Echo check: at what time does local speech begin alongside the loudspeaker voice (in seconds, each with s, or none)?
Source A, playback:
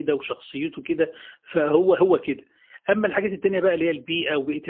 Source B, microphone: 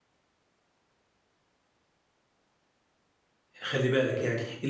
3.6 s